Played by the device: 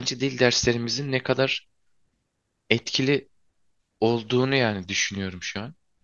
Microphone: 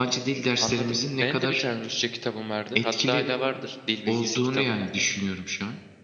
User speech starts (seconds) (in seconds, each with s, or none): 0.6 s